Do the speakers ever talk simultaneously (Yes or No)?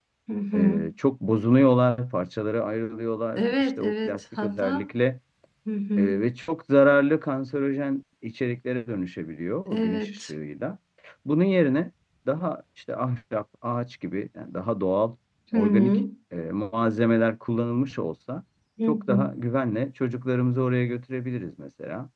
Yes